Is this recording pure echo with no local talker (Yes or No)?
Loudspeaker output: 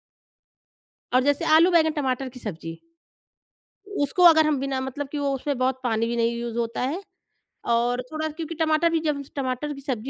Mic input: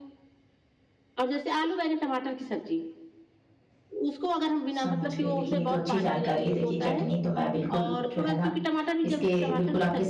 No